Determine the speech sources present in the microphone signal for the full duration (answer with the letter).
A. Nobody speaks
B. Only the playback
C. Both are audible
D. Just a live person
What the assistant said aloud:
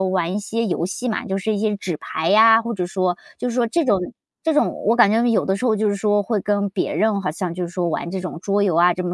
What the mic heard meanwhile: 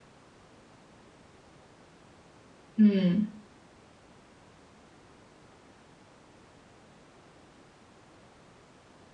D